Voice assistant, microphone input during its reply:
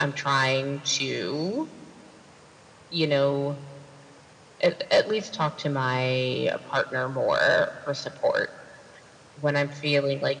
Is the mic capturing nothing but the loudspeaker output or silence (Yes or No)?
Yes